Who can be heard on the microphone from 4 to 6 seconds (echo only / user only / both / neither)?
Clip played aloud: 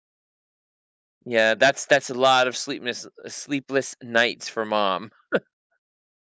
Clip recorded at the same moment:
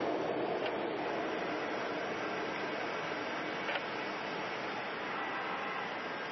neither